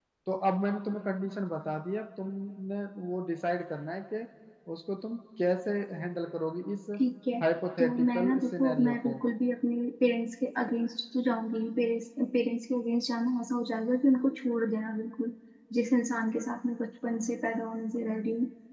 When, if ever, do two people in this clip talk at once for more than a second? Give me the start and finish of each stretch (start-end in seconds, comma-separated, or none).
7.8-9.2